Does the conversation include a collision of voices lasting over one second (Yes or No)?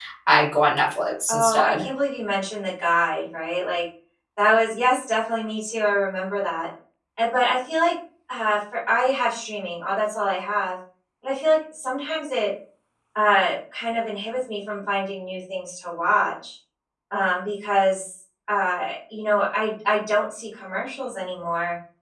No